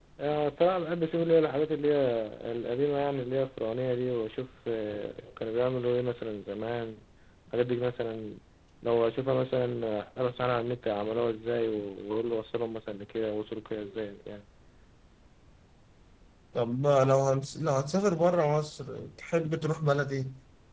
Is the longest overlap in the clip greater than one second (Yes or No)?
No